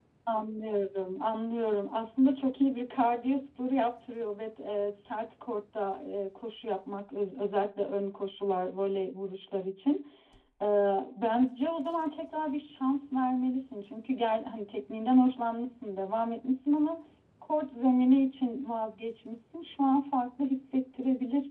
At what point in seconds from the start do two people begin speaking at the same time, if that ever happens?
none

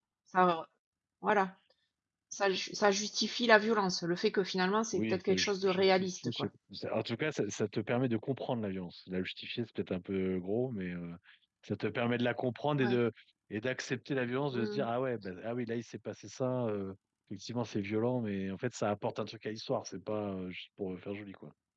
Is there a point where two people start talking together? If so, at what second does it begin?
4.9 s

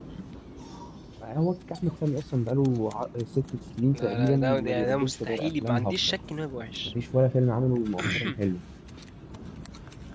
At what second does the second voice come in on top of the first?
3.9 s

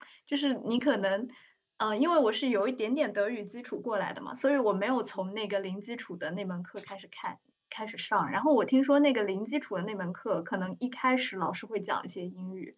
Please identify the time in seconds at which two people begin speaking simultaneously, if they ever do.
none

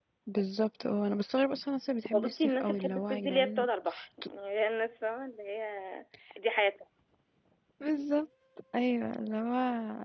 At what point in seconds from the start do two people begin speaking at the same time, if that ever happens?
2.1 s

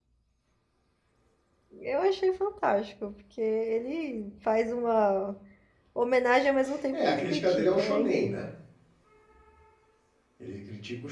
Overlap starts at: 6.9 s

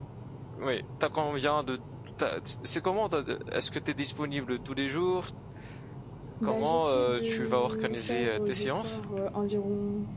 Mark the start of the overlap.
6.4 s

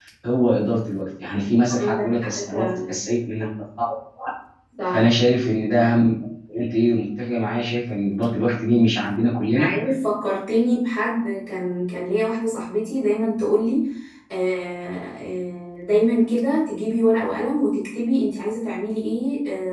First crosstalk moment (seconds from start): 1.8 s

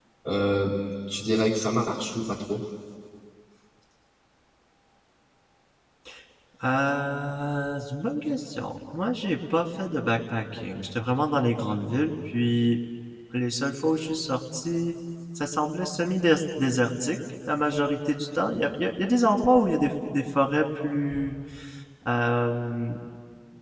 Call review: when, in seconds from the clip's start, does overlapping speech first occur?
none

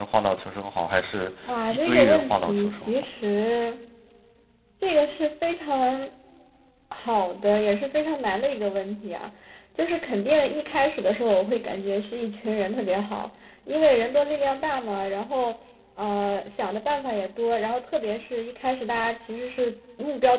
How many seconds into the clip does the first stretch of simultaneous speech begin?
1.7 s

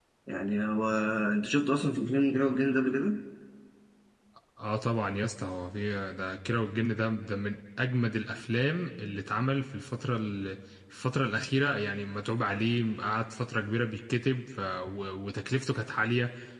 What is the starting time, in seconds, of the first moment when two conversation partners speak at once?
none

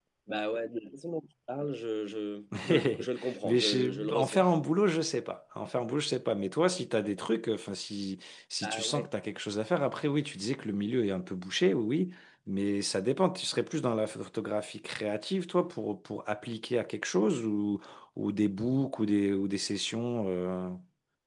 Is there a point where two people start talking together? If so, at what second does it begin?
2.7 s

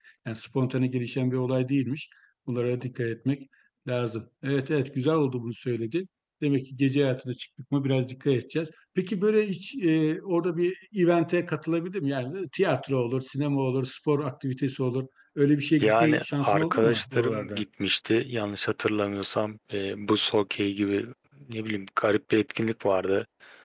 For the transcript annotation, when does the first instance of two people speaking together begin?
15.8 s

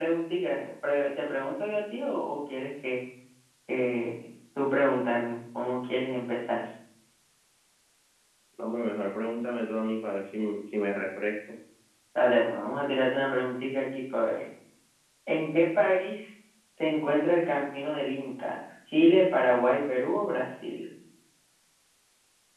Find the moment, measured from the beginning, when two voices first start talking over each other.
none

